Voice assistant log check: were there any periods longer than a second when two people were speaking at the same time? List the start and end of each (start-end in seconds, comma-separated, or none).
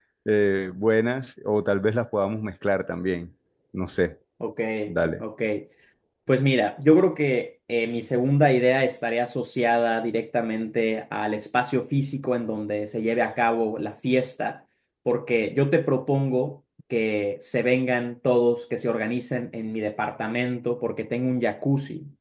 none